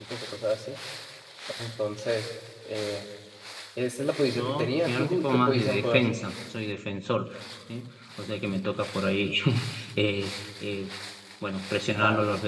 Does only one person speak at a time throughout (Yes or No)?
No